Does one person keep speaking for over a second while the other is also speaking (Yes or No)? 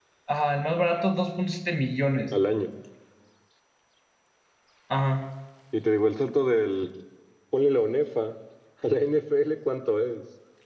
No